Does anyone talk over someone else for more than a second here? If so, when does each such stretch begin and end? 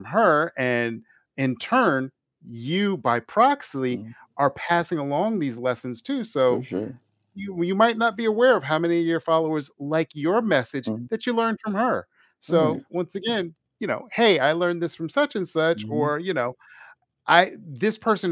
none

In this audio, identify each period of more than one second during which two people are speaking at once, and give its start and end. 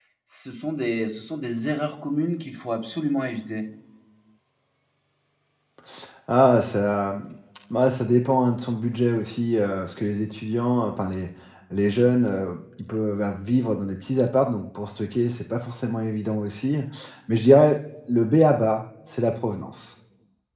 none

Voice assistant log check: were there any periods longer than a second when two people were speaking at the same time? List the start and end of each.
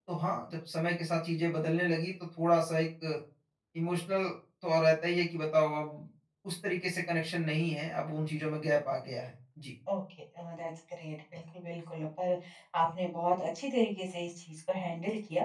none

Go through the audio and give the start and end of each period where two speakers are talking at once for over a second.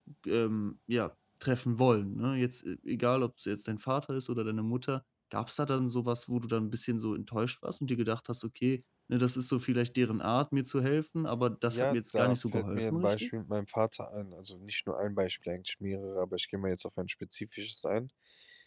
11.7-13.3

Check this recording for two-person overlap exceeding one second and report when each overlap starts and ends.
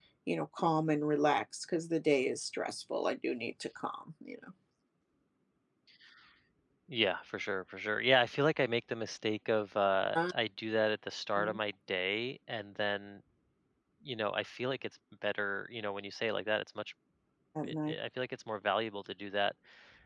none

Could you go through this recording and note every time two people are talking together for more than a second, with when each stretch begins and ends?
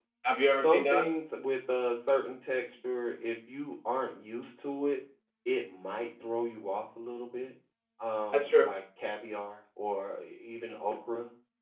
none

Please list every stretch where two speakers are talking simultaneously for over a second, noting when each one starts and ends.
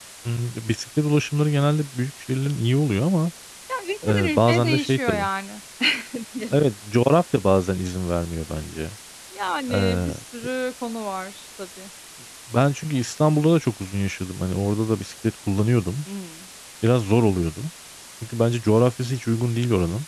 4.1-5.3

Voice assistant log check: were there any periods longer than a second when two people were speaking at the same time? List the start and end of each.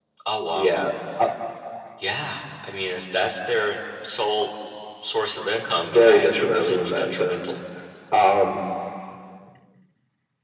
5.8-7.5

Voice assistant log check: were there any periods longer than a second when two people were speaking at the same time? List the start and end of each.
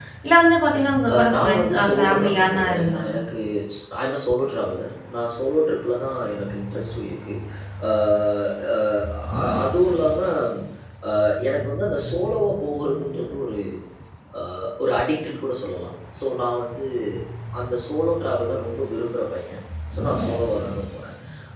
1.1-3.2

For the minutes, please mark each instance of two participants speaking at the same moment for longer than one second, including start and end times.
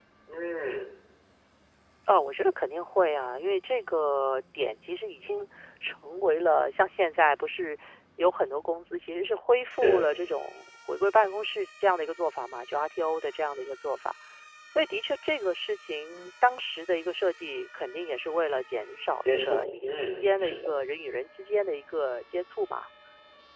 19.2-20.7

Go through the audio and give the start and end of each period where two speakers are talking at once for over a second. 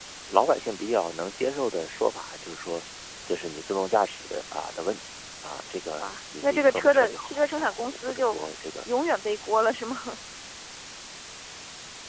6.4-8.4

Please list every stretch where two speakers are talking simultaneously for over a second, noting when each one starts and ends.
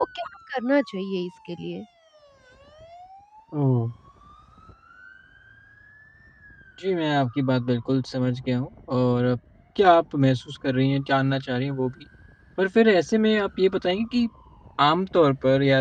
none

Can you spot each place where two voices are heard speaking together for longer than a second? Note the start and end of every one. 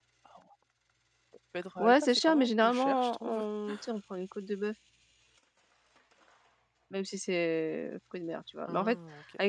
1.8-3.4

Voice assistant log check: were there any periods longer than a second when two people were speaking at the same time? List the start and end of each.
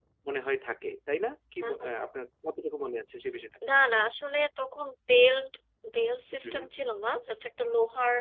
none

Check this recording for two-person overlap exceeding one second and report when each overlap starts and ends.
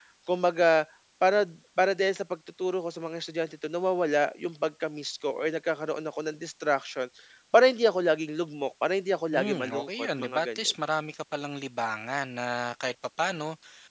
9.3-10.7

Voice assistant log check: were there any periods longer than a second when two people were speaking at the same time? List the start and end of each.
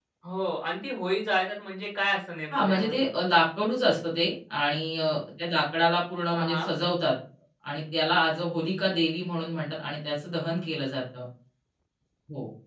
none

